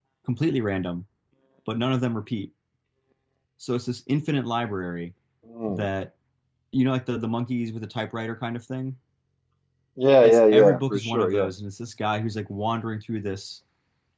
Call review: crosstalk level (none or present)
present